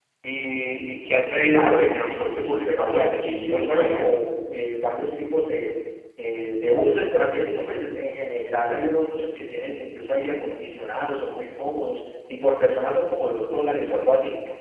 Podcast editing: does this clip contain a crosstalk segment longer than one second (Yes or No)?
Yes